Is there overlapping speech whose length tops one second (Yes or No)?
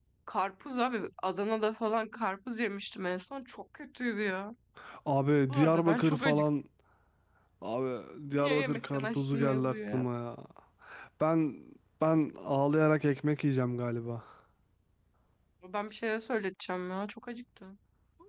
Yes